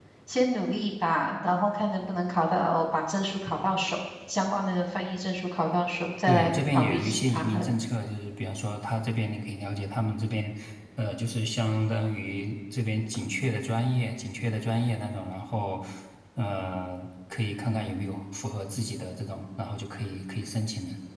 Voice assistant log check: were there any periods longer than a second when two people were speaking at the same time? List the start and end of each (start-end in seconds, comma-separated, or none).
6.3-7.7